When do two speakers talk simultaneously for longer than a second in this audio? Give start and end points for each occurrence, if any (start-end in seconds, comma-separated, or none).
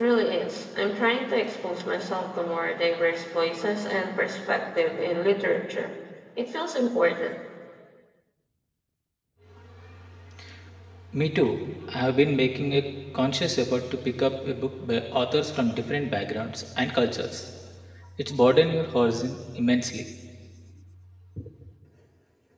none